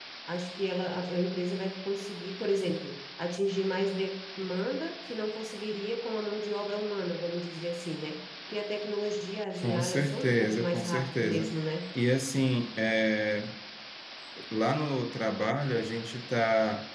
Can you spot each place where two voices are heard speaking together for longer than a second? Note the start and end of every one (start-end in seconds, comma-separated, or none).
9.6-11.5